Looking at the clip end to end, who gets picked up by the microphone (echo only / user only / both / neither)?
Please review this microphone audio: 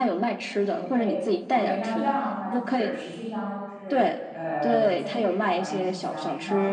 both